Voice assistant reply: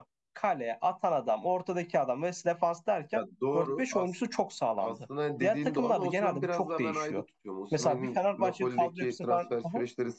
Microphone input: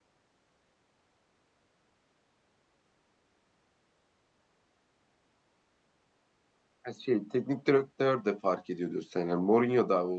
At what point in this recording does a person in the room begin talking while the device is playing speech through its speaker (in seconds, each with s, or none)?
6.8 s